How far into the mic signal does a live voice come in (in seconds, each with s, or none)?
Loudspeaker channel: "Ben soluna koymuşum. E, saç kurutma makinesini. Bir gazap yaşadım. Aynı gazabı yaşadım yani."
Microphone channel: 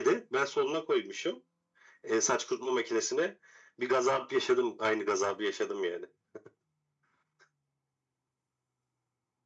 none